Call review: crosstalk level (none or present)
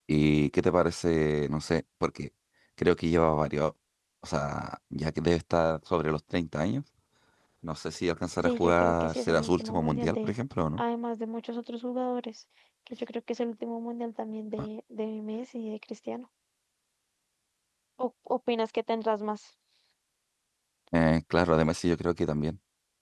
present